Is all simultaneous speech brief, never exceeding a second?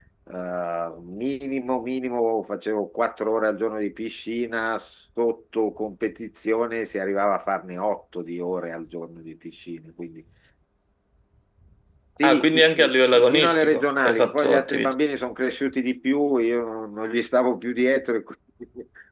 No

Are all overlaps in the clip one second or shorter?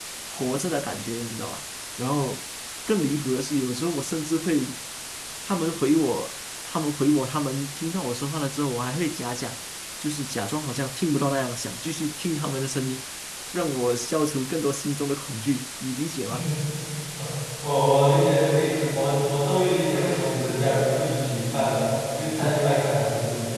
Yes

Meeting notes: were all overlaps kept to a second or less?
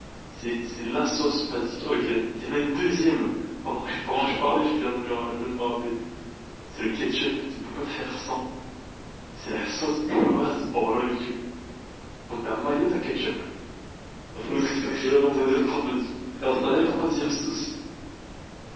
No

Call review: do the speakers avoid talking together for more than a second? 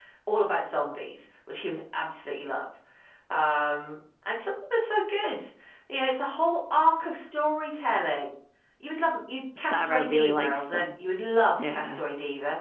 No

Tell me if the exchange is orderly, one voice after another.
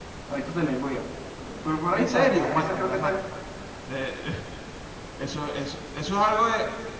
No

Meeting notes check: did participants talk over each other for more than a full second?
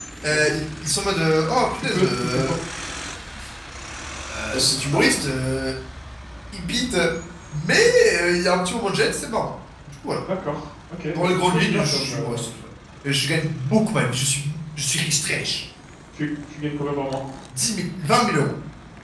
Yes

